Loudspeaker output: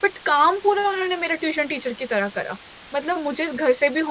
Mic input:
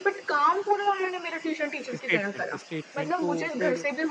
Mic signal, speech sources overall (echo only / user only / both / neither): both